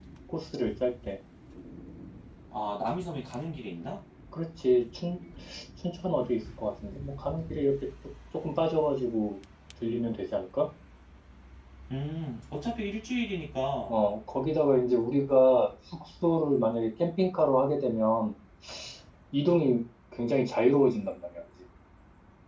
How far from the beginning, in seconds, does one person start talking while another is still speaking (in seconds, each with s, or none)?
none